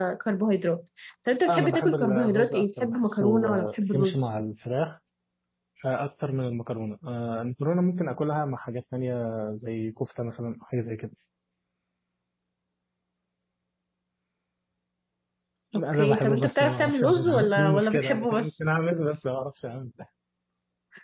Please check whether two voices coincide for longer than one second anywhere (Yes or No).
Yes